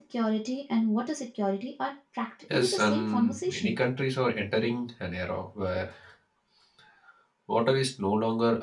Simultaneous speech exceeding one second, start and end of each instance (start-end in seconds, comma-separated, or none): 2.5-3.8